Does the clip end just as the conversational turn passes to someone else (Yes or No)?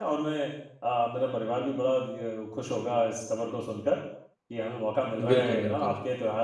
No